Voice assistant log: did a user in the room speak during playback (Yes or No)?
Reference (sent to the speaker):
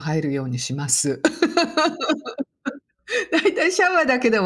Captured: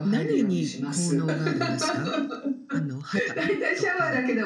Yes